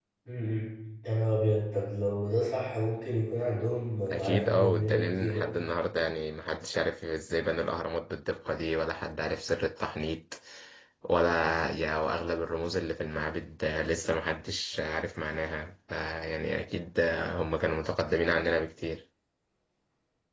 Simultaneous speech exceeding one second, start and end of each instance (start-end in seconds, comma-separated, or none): 4.1-5.5